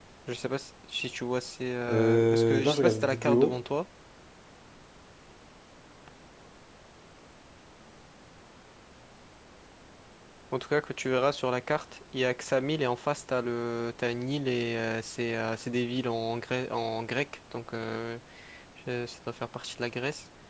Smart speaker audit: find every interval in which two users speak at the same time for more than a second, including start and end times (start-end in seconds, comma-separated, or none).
1.9-3.6